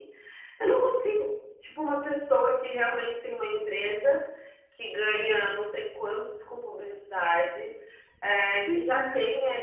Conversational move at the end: listening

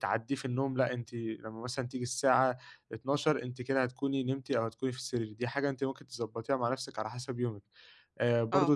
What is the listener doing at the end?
listening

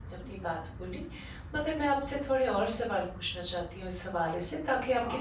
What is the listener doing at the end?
listening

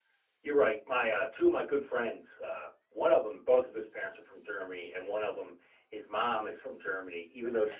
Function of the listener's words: listening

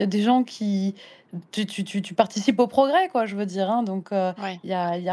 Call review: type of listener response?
listening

